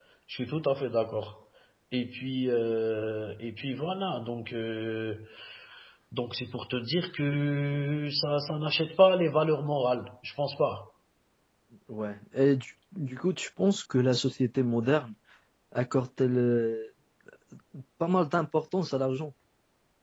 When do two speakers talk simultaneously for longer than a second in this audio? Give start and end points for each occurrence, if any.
none

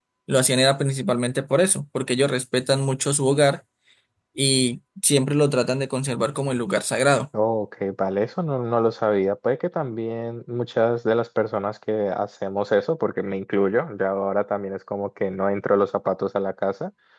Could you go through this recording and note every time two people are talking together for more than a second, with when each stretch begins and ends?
none

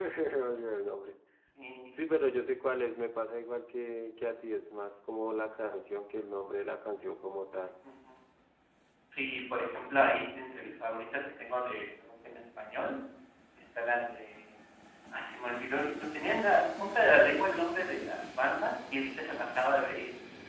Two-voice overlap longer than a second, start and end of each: none

